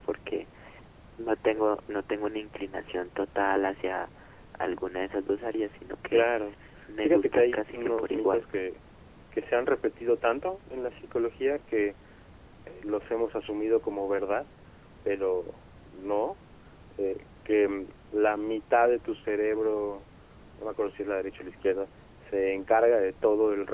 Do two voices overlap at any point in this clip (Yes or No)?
Yes